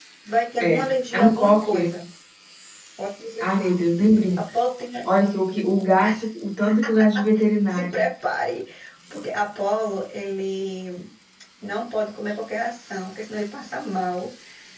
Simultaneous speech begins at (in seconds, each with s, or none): 0.6 s